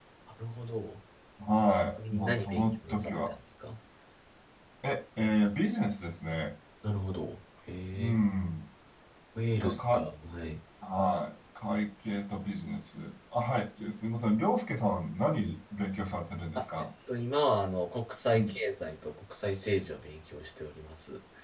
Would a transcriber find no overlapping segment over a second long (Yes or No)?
No